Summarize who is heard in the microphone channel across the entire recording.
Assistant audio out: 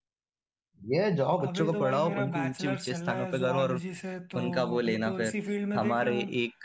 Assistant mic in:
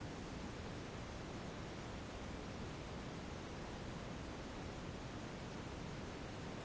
neither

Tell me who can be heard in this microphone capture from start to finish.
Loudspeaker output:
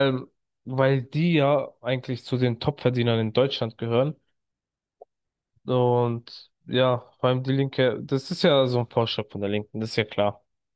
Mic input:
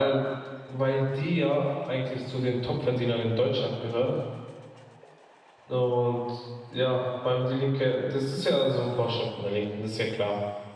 echo only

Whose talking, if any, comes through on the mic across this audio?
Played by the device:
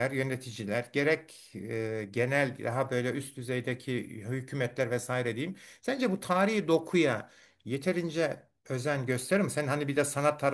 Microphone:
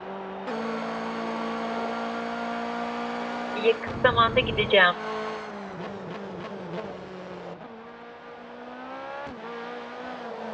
user only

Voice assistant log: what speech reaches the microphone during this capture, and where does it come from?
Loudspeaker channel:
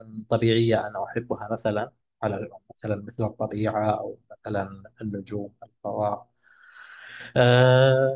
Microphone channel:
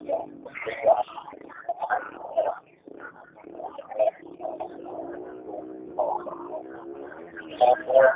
echo only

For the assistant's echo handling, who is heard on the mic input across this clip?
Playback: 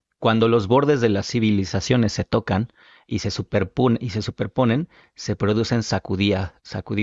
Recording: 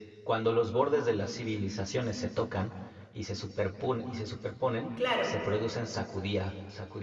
both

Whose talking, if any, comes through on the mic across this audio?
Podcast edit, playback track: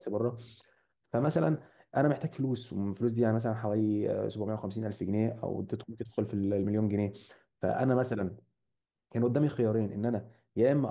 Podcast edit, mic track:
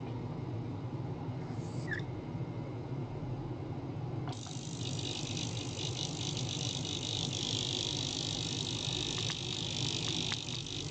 neither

